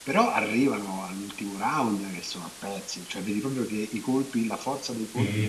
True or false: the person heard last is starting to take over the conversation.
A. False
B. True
A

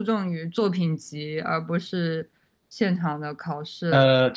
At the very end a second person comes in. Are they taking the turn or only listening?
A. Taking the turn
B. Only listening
A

